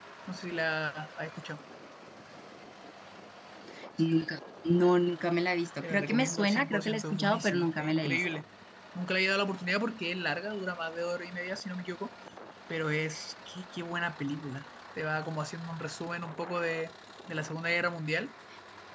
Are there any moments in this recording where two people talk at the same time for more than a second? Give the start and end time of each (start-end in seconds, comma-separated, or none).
5.8-8.2